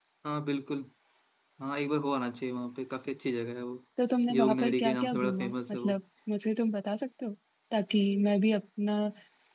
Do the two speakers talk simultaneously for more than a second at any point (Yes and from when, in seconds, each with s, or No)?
Yes, from 4.3 s